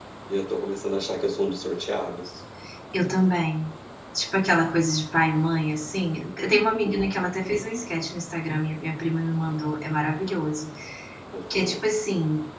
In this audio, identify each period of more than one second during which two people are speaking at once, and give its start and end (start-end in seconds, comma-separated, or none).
none